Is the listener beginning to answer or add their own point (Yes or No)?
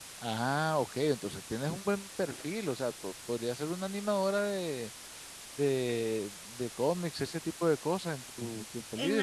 Yes